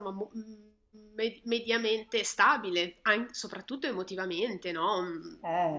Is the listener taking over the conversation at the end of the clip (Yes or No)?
No